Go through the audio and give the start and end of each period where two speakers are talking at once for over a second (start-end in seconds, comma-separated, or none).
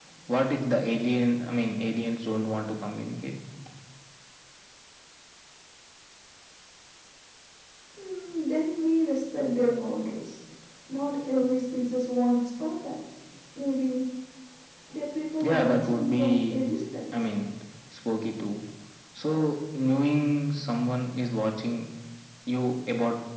15.4-16.6